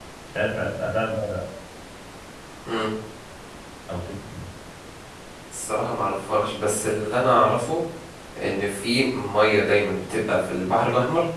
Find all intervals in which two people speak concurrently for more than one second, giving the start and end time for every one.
none

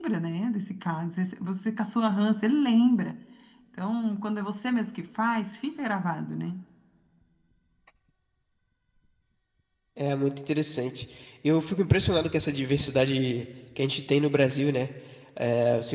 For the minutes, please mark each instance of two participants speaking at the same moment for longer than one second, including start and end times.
none

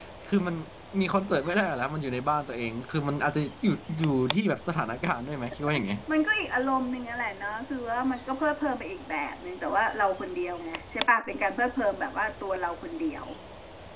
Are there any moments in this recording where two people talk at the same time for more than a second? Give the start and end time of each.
none

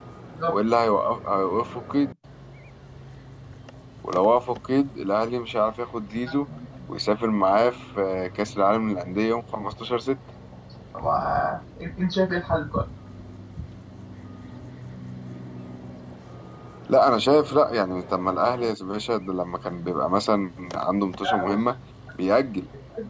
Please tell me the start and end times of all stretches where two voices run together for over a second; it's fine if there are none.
none

